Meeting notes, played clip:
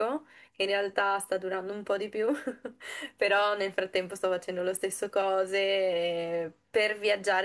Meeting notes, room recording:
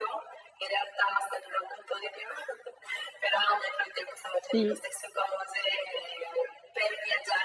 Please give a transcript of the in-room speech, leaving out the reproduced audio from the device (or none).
Sì.